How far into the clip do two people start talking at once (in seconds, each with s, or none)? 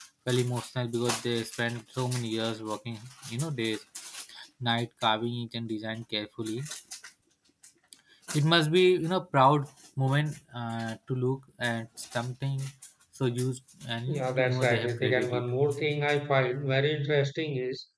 14.1 s